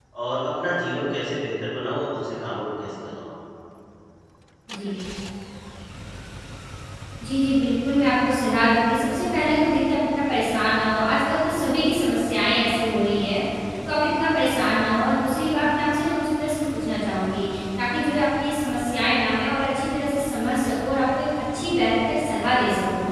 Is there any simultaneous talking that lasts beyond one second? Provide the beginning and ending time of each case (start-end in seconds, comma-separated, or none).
none